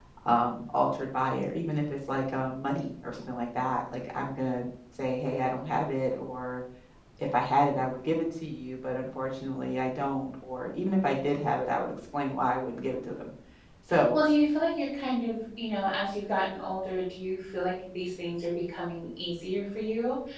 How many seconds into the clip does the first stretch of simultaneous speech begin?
none

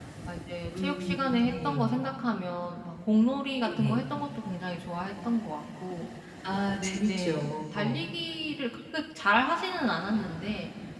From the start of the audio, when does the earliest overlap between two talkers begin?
0.7 s

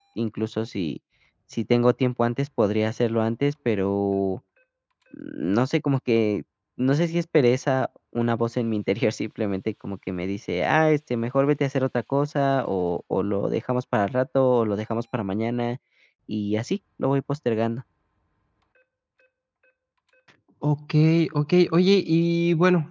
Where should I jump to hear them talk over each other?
none

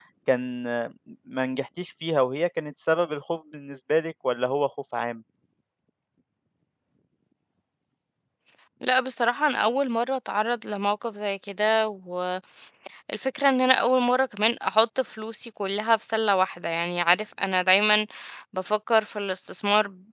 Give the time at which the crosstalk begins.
none

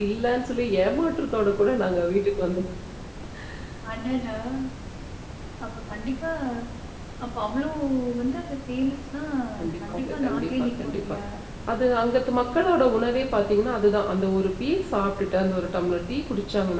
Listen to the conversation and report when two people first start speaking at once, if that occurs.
9.6 s

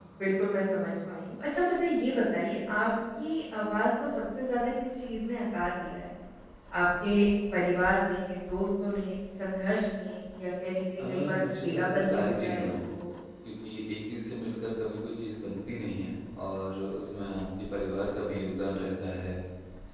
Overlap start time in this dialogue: 11.0 s

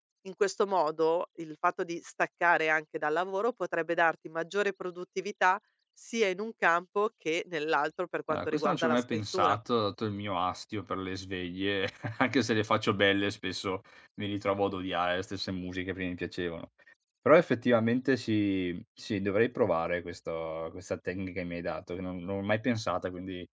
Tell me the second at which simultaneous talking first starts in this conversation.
8.3 s

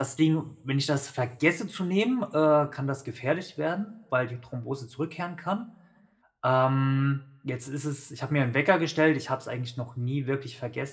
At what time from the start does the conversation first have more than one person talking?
none

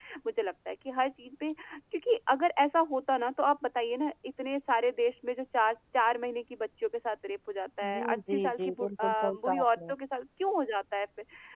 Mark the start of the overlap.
7.8 s

